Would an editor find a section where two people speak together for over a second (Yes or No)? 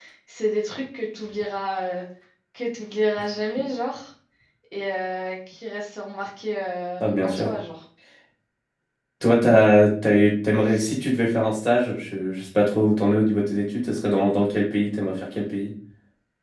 No